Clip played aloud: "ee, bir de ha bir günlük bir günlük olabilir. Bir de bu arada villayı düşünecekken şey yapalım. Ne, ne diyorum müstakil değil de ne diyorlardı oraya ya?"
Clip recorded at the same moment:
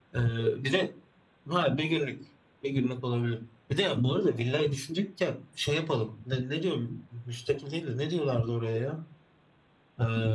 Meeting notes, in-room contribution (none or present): none